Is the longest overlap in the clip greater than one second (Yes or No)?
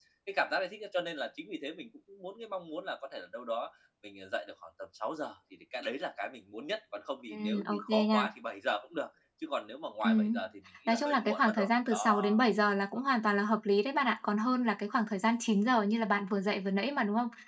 Yes